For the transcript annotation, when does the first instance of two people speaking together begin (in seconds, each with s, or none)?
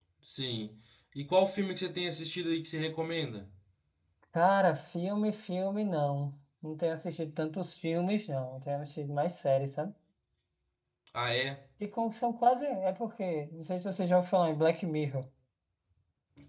none